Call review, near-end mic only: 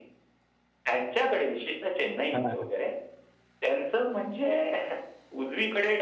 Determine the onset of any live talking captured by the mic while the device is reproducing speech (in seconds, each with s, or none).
2.3 s